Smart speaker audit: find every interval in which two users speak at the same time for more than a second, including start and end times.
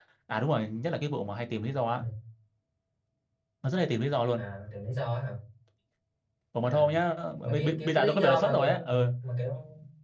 7.4-9.1

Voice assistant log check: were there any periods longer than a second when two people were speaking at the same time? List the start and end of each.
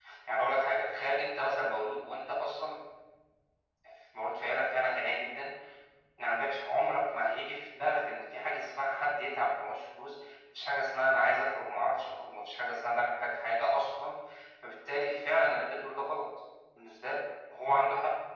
none

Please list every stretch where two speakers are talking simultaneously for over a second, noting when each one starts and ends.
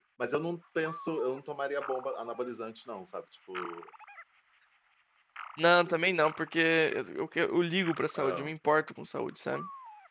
none

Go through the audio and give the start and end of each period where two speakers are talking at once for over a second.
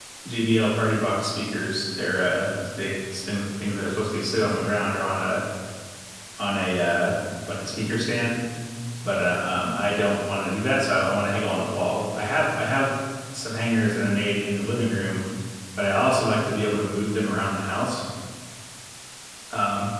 none

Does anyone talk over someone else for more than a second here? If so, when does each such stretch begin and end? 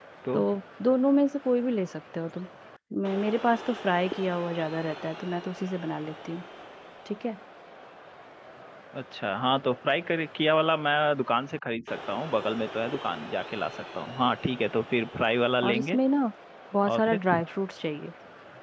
none

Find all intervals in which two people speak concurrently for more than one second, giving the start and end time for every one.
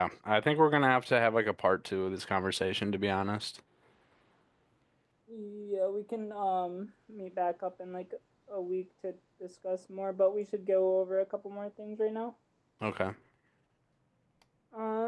none

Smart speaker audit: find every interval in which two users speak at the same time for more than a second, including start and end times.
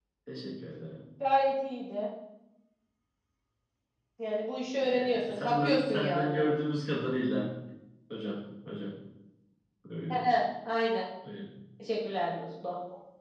4.8-6.4

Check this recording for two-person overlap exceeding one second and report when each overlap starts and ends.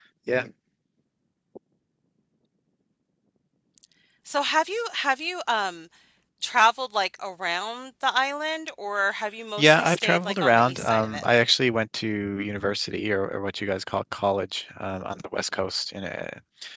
9.6-11.3

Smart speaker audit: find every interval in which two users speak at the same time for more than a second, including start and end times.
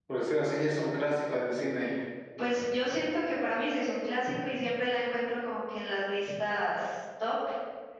none

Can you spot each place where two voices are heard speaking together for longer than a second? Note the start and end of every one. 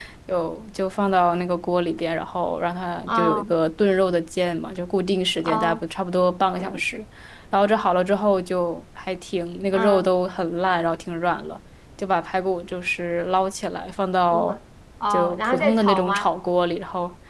15.1-16.3

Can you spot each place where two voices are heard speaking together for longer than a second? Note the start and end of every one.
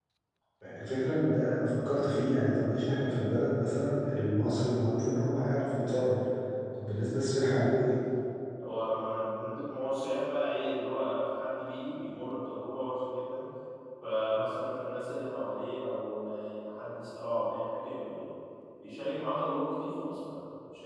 none

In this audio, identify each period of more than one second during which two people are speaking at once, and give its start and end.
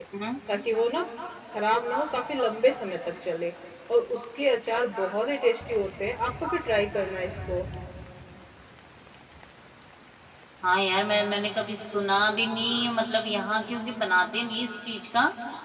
none

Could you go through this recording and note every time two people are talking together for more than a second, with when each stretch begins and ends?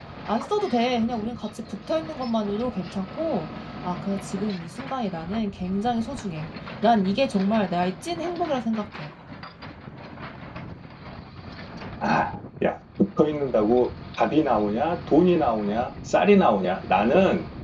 none

